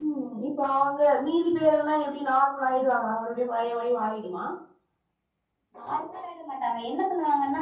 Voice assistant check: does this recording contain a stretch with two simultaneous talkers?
No

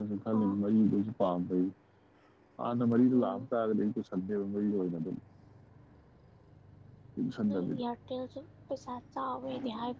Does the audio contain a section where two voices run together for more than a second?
No

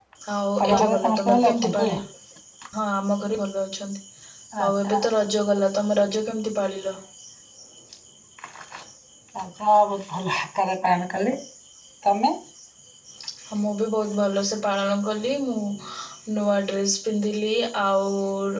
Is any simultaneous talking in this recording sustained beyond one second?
Yes, from 0.6 s

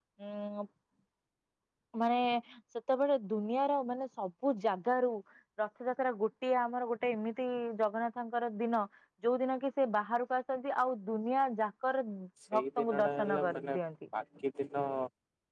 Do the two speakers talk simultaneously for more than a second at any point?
Yes, from 12.6 s

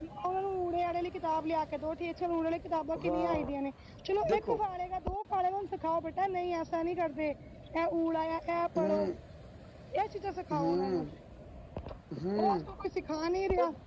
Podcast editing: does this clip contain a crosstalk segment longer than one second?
No

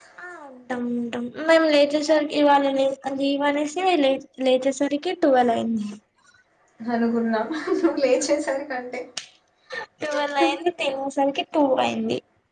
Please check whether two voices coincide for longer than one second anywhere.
No

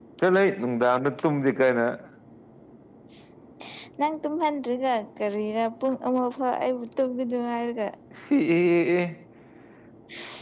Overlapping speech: No

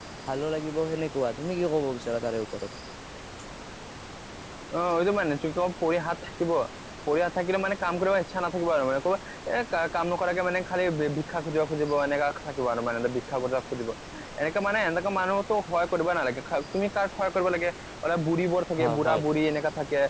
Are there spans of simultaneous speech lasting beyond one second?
No

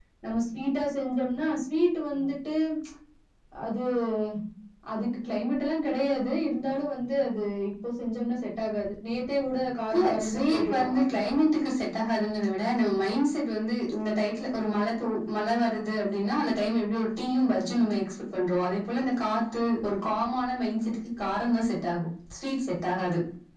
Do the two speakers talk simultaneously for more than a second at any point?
Yes, from 9.9 s

